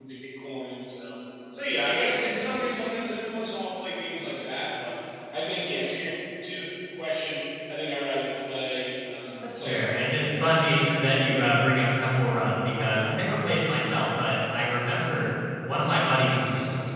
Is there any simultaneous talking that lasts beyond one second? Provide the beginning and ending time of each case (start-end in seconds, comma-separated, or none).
9.5-11.6